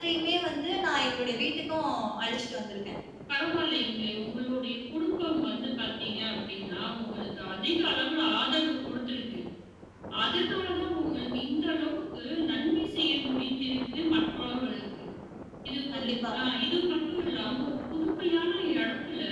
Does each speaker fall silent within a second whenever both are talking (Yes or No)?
Yes